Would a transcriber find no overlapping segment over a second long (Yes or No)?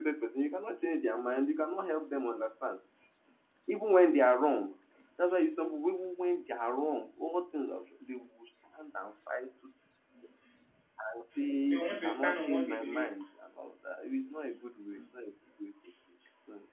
No